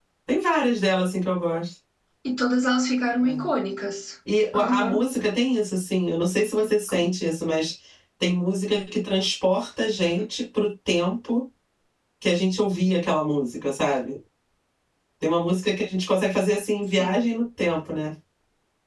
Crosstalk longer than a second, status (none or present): none